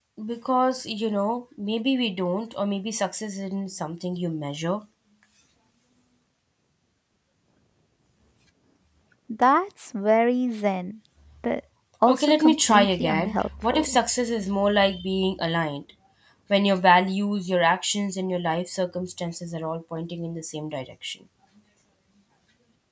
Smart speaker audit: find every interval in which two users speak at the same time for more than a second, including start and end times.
12.1-13.9

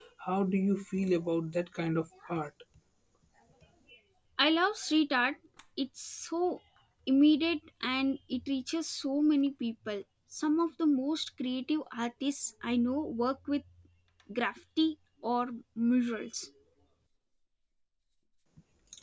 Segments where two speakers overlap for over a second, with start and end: none

